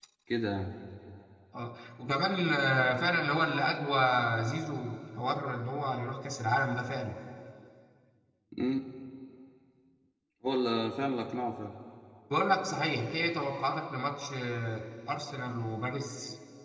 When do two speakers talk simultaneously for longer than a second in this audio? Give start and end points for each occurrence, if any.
none

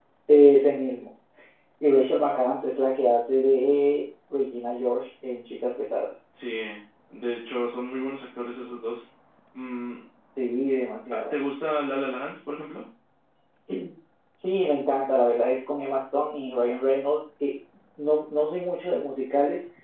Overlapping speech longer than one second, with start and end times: none

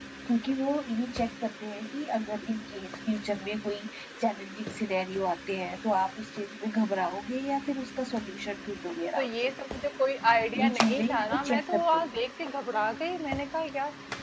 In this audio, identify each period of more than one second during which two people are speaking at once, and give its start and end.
10.6-12.1

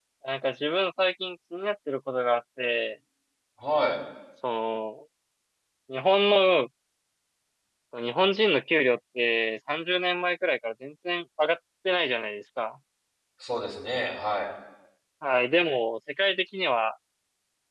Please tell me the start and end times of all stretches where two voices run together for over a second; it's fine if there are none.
none

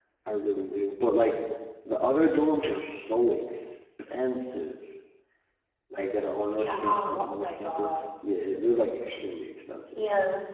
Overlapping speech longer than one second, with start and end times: 6.5-8.1

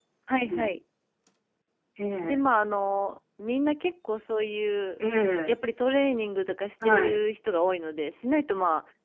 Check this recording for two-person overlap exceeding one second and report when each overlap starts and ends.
none

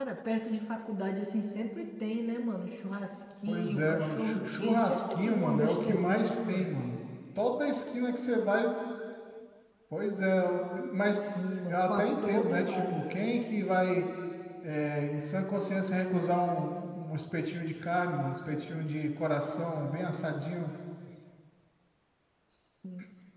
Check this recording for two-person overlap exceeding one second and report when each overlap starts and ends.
3.5-6.7, 11.7-13.3

